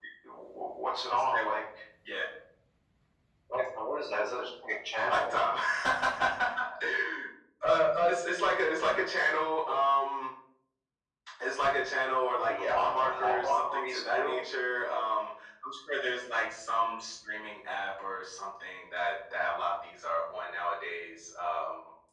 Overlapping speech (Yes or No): Yes